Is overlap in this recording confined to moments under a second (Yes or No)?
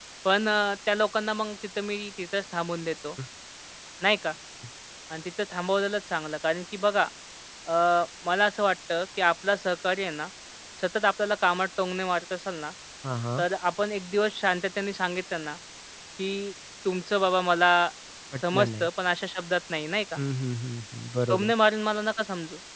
Yes